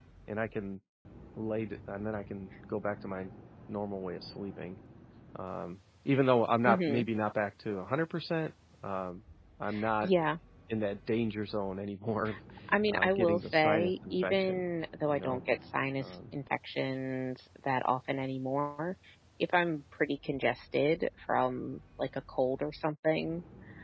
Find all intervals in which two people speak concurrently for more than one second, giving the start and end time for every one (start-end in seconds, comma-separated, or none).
12.9-14.6